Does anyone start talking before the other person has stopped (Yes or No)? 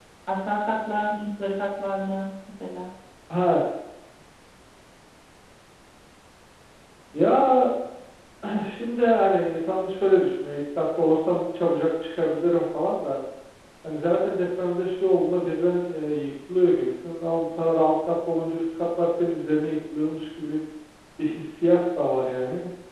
No